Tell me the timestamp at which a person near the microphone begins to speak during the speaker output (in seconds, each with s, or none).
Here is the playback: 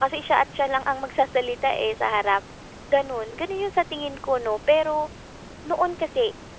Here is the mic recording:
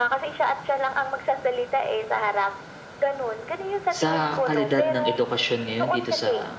4.0 s